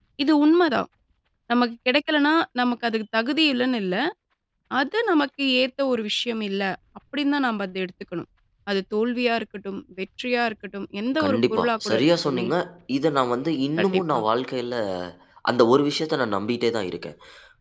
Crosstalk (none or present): present